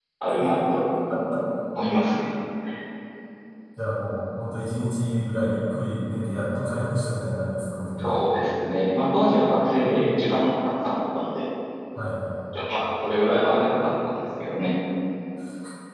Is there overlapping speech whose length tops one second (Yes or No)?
No